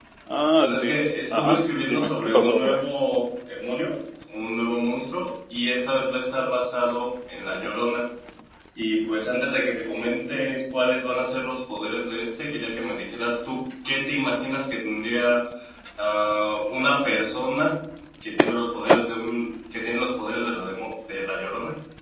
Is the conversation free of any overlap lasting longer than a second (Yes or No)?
No